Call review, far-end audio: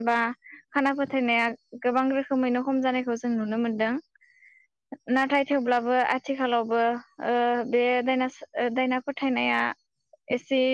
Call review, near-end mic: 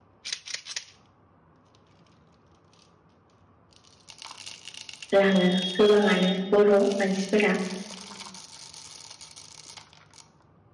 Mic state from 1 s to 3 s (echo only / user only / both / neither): neither